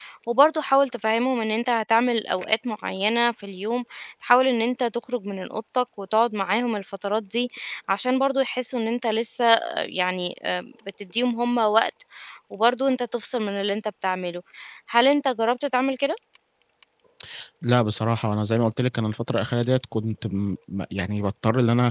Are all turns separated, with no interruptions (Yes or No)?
Yes